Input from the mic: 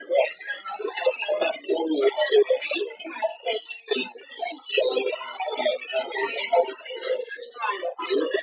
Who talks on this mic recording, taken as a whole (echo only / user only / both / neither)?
echo only